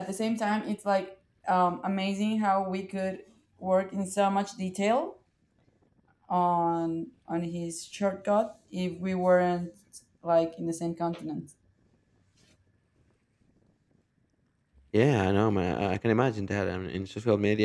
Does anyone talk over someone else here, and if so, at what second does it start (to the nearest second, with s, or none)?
none